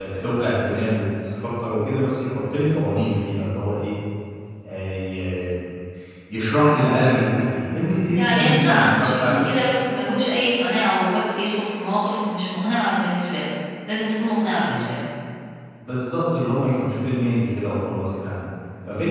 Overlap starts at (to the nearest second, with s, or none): 8 s